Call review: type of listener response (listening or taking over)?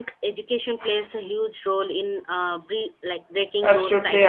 taking over